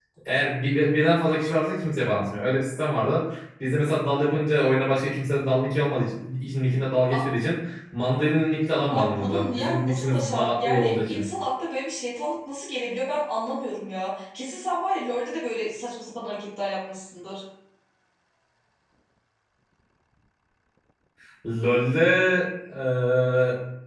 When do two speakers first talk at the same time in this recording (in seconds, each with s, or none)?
8.9 s